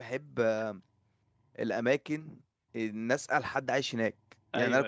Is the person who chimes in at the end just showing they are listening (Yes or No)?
Yes